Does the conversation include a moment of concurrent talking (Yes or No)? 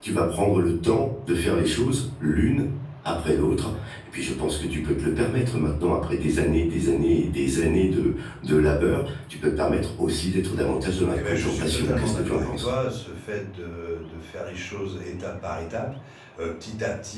Yes